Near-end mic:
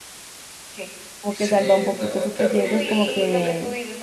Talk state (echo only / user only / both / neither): both